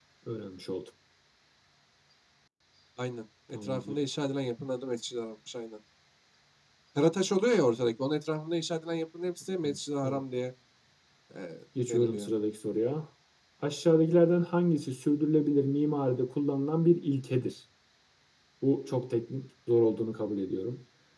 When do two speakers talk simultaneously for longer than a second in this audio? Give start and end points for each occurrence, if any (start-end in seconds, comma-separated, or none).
none